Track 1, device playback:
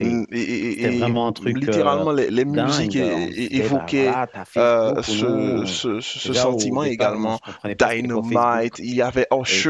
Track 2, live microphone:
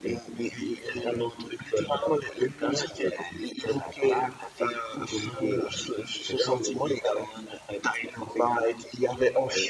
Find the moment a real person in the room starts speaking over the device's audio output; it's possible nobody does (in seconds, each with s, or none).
none